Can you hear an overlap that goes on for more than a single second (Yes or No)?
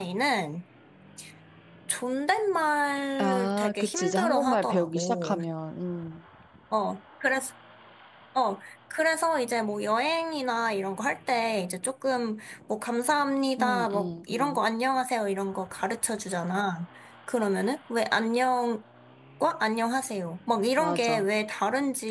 Yes